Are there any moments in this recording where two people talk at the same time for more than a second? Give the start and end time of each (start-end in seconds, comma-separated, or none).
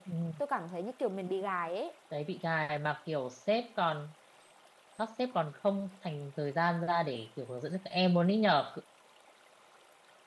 none